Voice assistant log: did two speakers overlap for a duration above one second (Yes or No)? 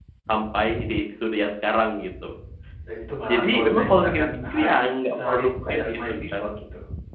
Yes